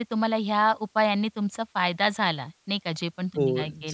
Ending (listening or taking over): taking over